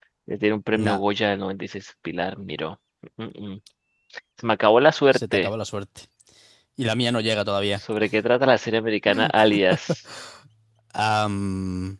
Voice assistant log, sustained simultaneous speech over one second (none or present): none